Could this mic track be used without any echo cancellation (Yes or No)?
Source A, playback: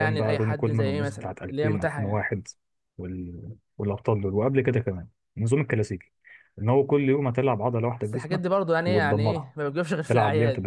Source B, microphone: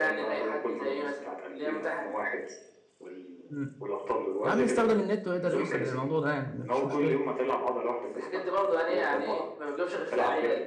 No